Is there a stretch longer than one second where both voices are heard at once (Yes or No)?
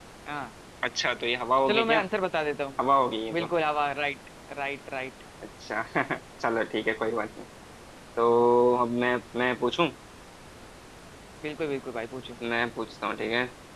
No